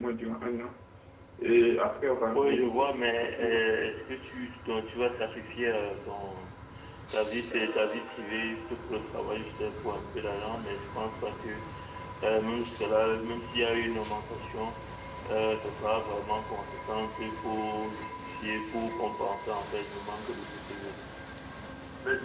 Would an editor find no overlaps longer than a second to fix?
No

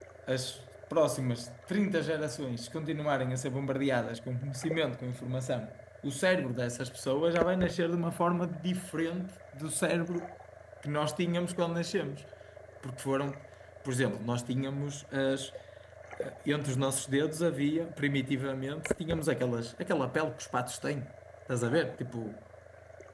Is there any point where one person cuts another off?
No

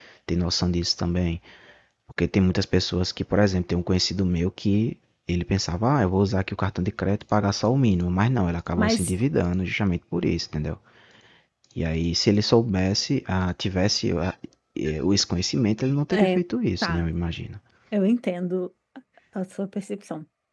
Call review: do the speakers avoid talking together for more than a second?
Yes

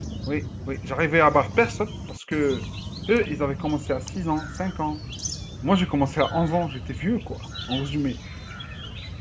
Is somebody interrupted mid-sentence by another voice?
No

